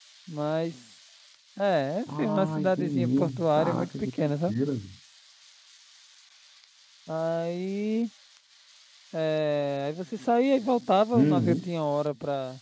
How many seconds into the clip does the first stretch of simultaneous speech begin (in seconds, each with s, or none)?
2.1 s